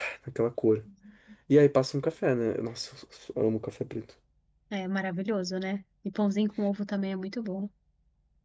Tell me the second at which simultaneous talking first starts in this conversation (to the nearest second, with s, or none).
none